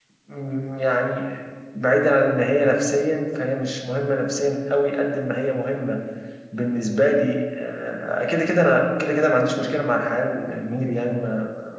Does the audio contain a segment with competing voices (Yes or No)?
No